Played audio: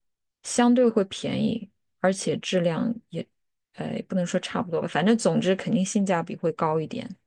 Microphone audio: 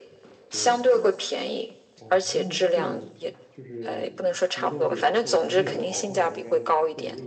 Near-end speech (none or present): present